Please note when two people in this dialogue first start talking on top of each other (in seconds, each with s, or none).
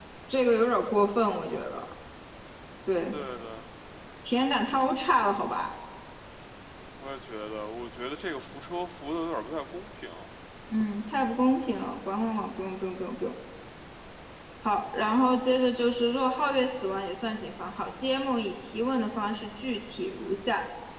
none